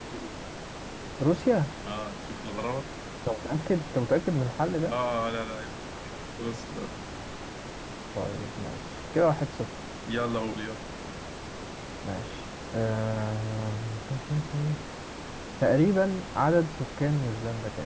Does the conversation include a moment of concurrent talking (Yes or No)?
No